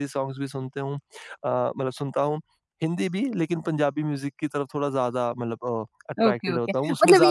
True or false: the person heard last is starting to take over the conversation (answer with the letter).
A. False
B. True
B